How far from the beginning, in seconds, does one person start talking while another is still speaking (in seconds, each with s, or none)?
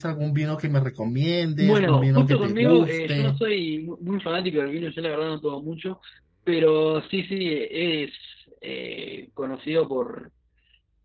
1.6 s